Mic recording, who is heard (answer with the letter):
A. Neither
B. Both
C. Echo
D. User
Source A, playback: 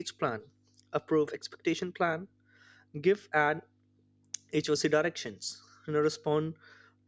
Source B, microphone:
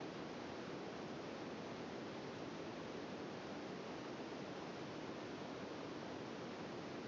A